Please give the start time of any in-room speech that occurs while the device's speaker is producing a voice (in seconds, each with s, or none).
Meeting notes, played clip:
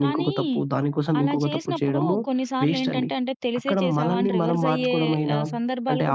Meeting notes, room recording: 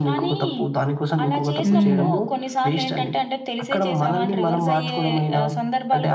1.6 s